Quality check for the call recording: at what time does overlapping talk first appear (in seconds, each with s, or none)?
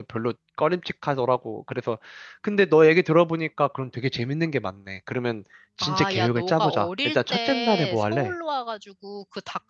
5.8 s